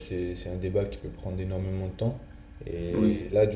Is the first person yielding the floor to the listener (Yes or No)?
No